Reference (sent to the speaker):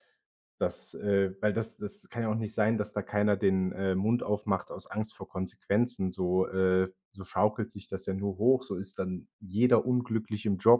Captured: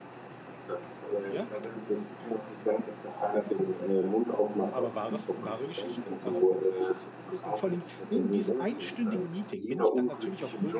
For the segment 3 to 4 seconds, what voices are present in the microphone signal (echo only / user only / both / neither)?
echo only